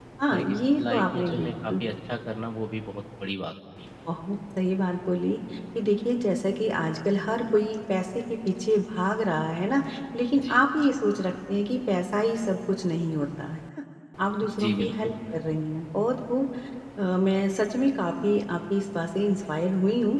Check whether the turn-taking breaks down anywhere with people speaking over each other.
Yes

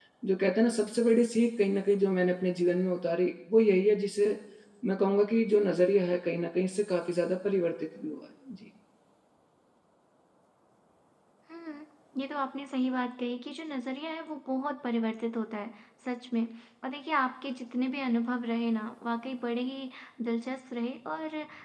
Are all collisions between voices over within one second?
Yes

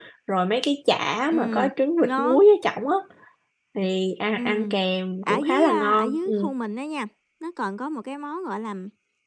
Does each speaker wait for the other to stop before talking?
No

